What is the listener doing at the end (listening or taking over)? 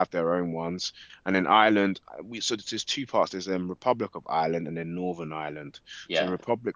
listening